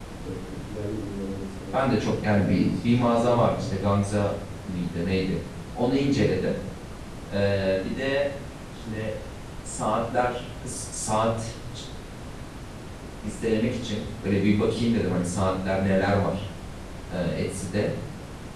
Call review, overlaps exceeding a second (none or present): present